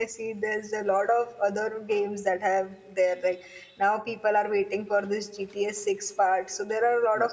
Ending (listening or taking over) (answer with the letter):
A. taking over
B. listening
B